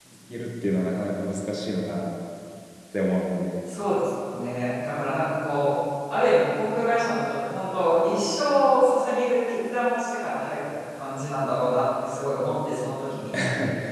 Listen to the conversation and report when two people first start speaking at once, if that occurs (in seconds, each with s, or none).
none